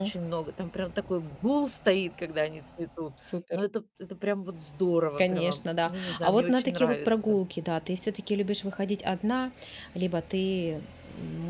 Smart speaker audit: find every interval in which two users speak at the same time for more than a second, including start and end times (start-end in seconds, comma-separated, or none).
5.2-7.4